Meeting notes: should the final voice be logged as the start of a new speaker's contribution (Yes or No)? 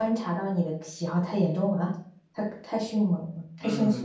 Yes